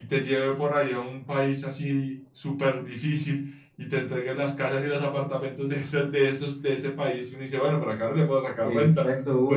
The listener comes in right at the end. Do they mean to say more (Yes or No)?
Yes